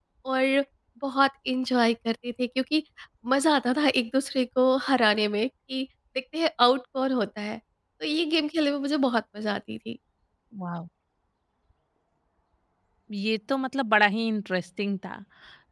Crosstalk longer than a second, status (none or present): none